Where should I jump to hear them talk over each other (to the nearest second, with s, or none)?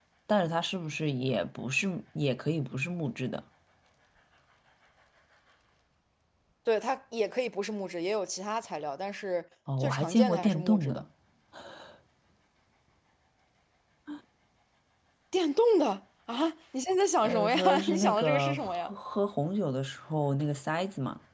10 s